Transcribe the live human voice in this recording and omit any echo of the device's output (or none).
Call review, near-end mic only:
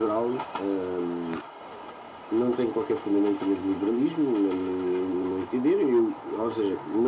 none